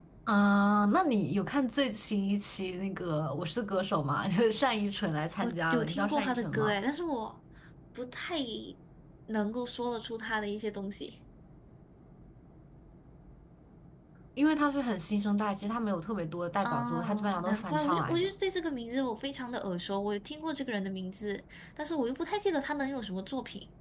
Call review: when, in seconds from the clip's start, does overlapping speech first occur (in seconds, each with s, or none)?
5.4 s